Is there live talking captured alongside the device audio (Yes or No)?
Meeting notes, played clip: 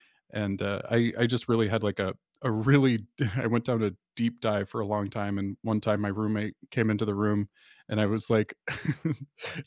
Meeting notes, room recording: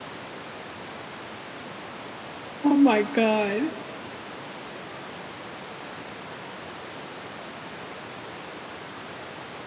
Yes